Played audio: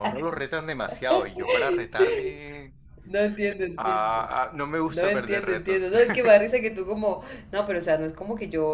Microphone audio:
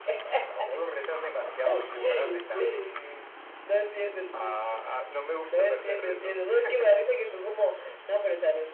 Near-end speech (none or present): none